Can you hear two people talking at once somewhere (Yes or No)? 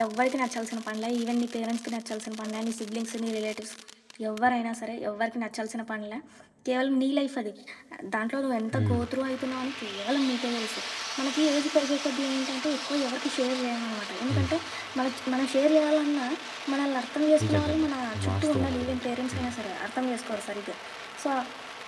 Yes